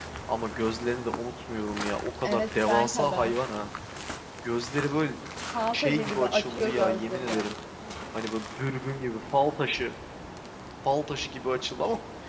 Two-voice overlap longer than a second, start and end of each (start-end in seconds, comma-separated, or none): 2.2-3.4, 5.7-7.5